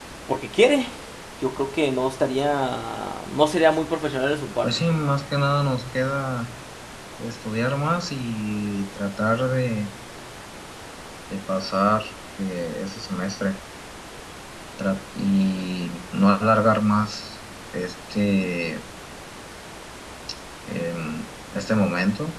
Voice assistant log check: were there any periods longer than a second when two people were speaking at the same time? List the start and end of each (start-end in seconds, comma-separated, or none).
none